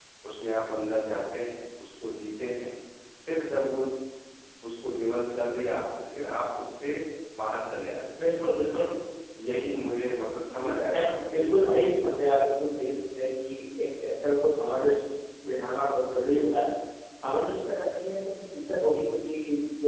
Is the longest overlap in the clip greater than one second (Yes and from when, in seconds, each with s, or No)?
Yes, from 10.6 s